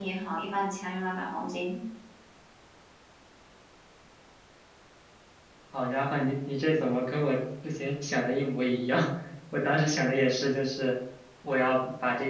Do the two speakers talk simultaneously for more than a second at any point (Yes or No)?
No